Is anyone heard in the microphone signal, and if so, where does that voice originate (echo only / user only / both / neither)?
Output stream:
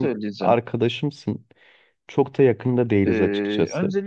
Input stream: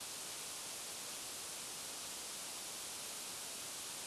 neither